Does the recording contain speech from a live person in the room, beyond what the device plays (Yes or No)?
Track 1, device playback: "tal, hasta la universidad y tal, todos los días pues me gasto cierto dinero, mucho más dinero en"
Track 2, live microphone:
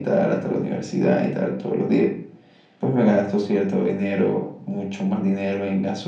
No